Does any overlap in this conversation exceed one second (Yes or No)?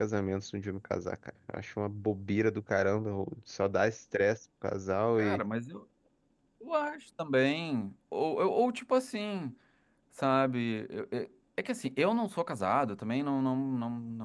No